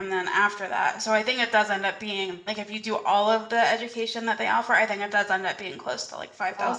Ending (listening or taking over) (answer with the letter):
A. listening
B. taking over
B